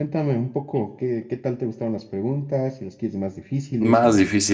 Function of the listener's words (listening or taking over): taking over